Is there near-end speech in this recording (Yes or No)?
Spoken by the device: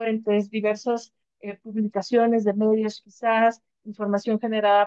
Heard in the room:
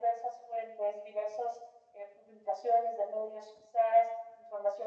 No